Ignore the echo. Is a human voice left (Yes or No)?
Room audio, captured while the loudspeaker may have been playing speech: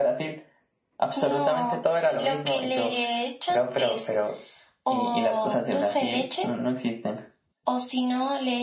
No